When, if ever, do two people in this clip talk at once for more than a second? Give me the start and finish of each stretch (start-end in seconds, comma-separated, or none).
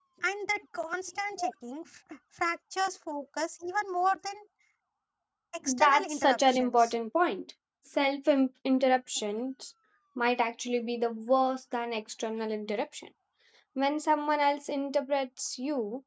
5.7-6.9